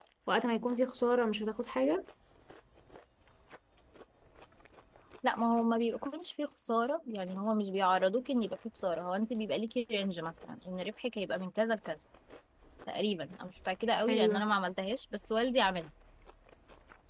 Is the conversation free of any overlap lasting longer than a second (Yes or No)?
Yes